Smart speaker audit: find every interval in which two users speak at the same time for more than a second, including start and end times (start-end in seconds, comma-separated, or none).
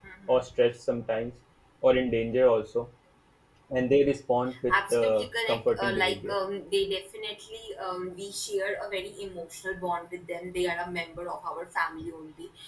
4.7-6.3